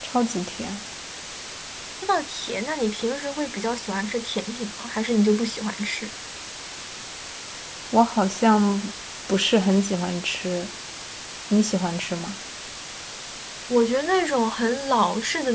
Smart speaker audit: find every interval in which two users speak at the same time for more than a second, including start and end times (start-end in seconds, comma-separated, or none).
none